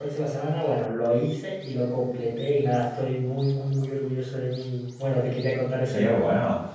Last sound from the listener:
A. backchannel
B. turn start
B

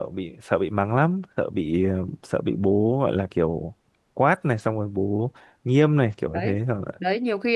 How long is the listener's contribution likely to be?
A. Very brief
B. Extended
B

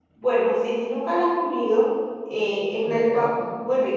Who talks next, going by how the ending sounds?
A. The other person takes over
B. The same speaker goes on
B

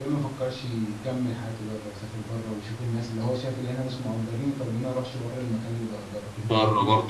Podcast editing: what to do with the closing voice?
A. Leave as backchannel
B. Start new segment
B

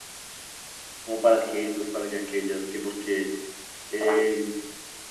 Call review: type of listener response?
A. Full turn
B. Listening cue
B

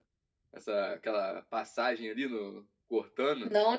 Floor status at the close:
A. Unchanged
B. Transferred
B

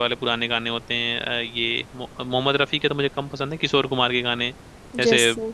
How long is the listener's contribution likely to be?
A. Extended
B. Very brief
B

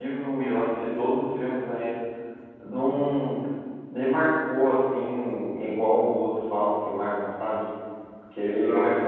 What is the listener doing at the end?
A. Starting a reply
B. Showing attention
B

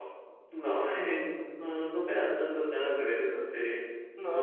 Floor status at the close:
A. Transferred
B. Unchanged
A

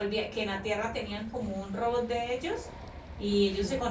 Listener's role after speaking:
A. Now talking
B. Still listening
B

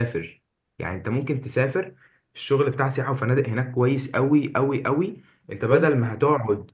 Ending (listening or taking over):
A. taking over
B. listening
B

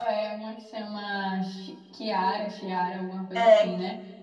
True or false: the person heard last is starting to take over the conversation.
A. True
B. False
A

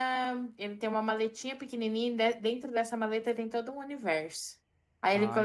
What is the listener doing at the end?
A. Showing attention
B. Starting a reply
A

